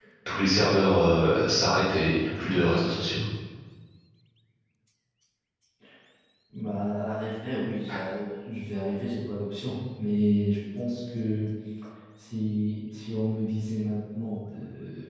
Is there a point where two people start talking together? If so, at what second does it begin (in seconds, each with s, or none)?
none